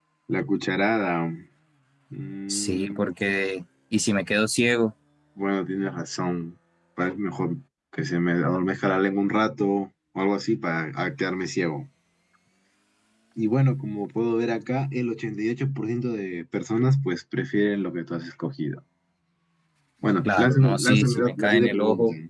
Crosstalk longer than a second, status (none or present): present